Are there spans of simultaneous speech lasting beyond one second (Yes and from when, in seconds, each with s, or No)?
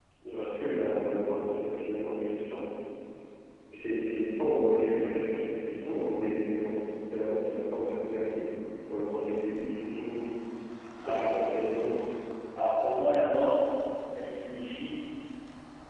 No